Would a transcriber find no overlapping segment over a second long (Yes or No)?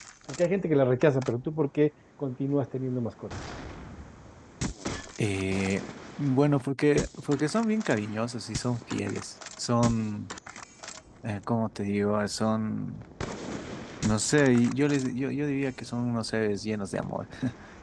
Yes